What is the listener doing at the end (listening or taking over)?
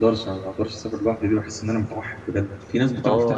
taking over